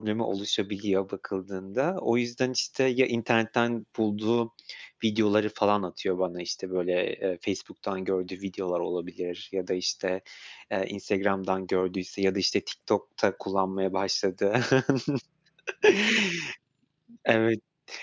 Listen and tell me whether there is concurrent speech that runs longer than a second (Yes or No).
No